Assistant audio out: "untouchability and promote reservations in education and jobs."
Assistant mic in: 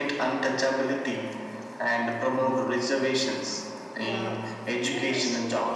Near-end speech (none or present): present